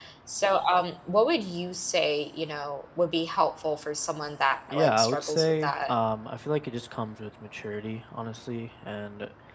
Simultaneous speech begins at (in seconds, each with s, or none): 4.7 s